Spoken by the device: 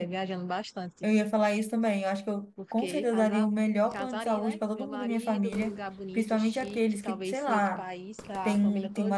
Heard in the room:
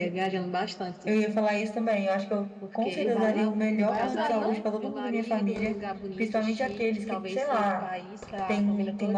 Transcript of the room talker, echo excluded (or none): Dubai? Dubai é uma cidade, não?